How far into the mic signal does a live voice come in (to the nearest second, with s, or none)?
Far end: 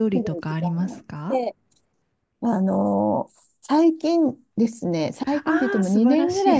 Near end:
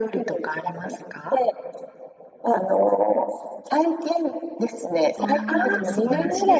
5 s